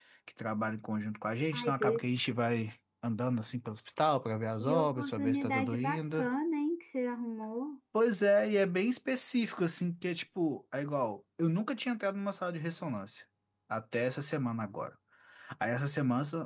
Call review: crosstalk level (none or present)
present